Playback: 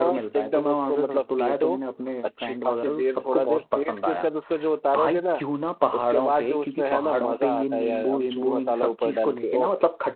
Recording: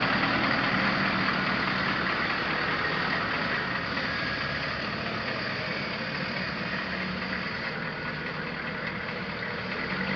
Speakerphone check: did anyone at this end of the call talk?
No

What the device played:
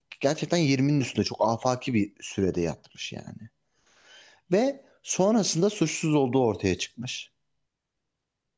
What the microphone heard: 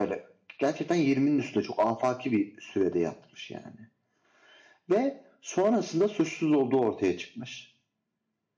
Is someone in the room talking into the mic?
No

